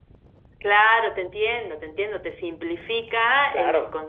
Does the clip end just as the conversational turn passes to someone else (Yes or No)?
No